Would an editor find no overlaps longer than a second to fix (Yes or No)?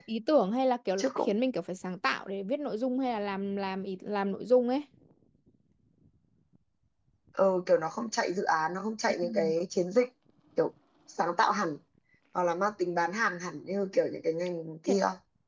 Yes